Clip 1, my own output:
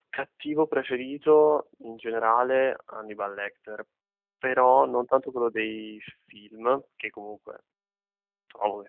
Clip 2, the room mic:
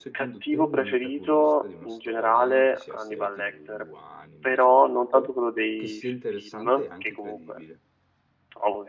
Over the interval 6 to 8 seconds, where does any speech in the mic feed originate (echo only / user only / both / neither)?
both